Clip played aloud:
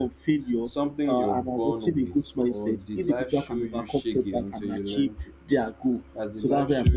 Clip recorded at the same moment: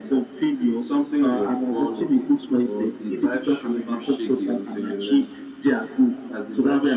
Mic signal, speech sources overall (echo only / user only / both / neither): echo only